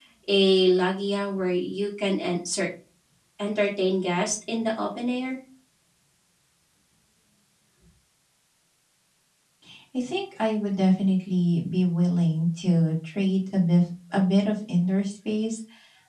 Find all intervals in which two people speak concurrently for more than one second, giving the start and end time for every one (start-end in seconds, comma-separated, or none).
none